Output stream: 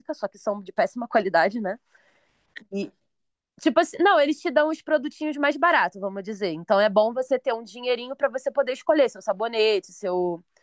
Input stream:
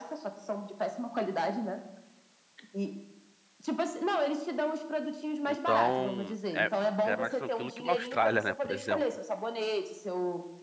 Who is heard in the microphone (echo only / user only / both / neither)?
both